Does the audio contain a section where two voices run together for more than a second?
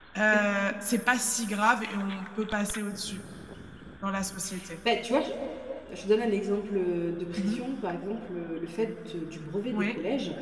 No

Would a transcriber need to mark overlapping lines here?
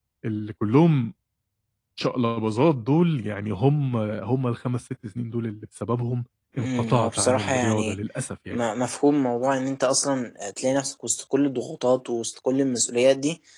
Yes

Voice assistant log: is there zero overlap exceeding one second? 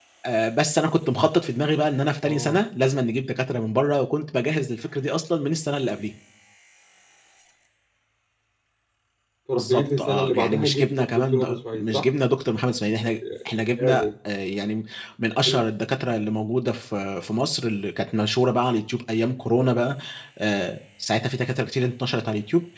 No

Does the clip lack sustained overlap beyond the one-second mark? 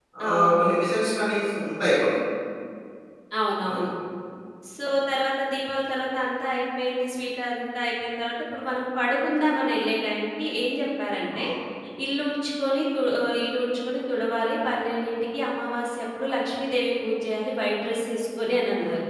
Yes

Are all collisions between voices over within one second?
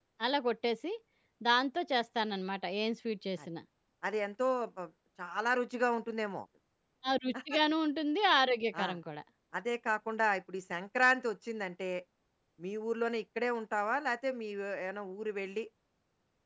Yes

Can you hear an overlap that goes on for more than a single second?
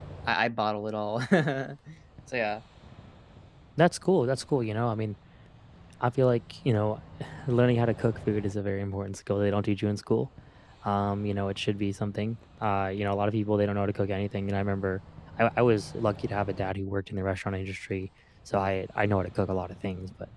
No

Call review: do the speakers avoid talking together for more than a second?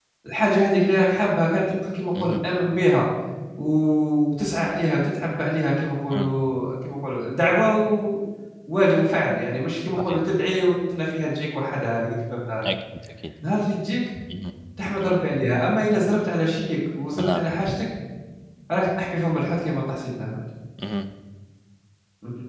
Yes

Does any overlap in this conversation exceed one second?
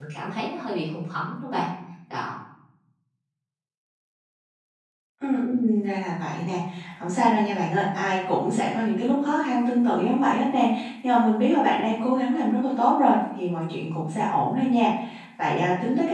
No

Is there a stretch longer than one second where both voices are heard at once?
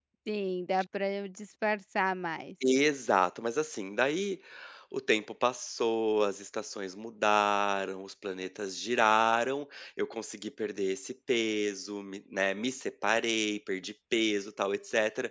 No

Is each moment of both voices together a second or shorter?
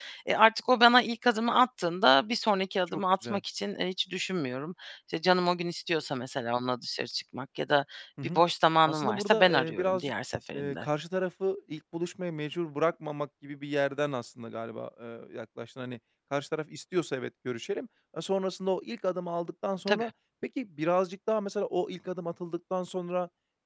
No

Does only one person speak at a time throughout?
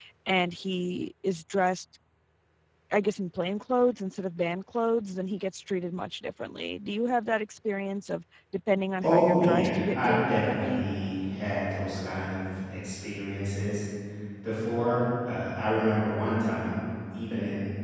No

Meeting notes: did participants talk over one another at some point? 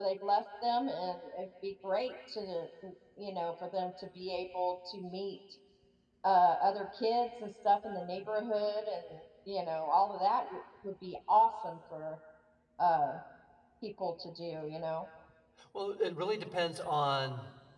No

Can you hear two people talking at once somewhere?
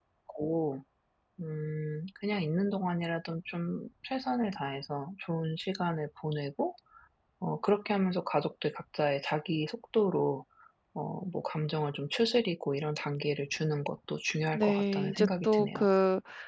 Yes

